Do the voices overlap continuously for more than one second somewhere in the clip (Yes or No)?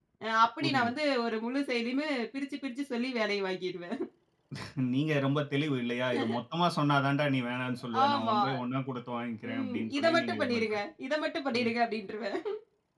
Yes